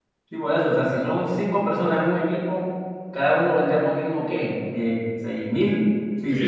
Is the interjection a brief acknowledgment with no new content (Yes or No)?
No